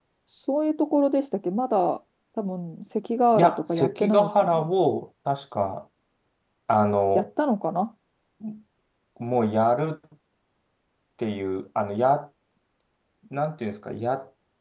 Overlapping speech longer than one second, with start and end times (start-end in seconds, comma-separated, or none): 3.3-4.7